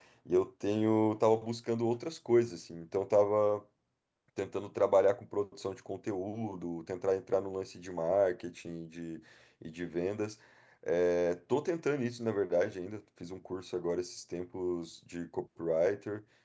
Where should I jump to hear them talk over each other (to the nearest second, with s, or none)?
none